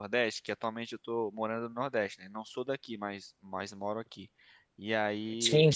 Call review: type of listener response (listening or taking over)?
listening